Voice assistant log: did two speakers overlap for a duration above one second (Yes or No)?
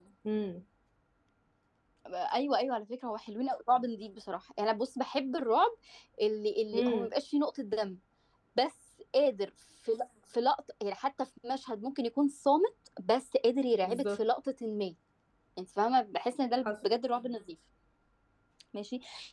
No